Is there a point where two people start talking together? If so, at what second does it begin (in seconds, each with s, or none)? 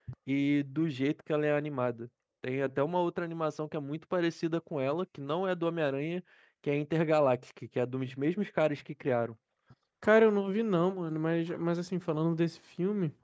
none